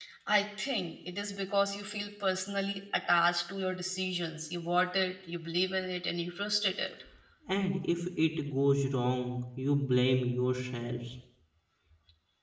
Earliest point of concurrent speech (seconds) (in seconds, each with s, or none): none